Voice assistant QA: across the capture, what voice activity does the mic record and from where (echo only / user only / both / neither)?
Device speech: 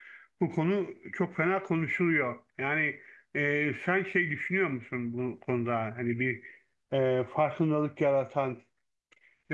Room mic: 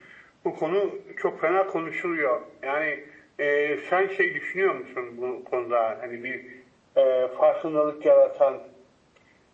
echo only